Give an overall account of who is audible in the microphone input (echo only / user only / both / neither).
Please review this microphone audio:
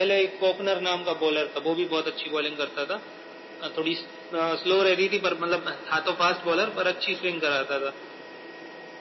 echo only